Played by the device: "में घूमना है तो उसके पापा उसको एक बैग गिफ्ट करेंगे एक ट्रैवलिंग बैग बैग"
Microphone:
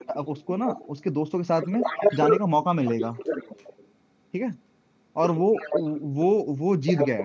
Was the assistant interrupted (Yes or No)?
Yes